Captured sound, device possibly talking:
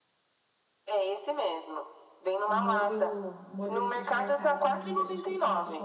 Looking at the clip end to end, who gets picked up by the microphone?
both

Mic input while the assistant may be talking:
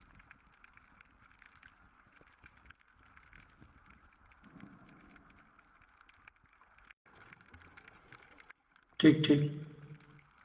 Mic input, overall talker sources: user only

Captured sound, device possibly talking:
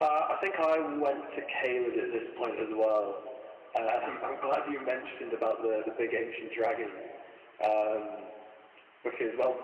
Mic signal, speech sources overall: echo only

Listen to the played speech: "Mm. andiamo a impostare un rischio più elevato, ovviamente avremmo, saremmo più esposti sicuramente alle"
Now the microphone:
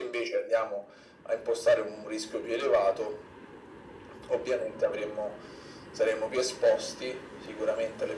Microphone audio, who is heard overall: echo only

